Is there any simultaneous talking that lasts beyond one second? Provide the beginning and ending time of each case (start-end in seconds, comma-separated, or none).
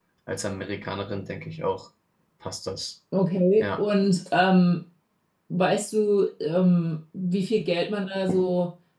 none